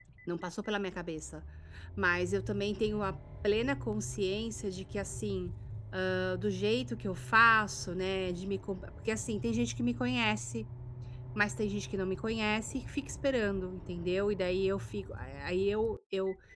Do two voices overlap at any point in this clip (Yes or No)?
No